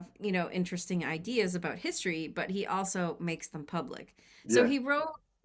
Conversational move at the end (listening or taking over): listening